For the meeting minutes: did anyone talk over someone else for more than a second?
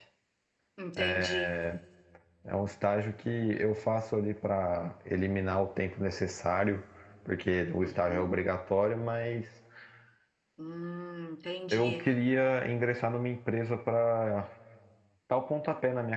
No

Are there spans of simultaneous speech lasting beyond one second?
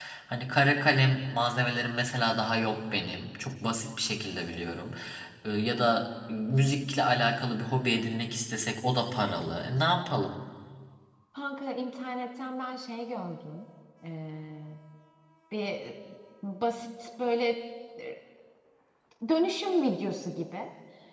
No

